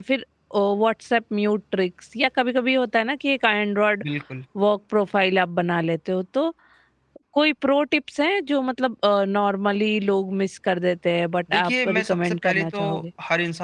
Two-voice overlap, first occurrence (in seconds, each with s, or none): 11.5 s